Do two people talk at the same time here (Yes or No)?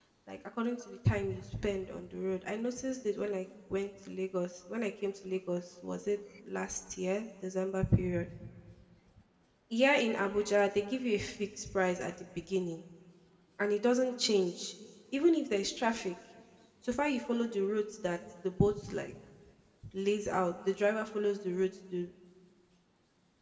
No